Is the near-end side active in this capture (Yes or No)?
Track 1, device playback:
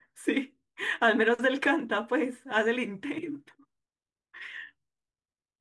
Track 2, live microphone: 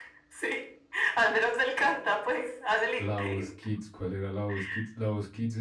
Yes